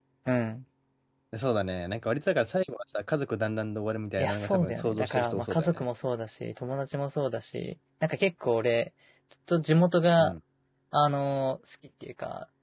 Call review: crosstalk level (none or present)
present